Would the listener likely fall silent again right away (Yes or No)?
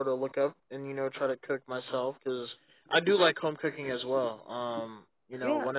Yes